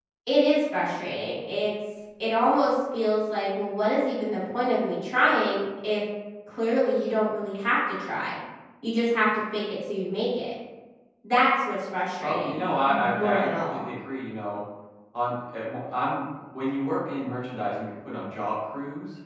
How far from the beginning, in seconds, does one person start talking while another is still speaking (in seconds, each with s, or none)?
12.2 s